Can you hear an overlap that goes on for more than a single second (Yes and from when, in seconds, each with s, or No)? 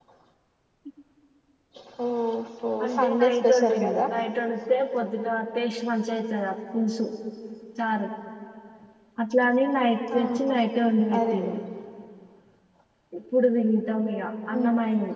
Yes, from 2.8 s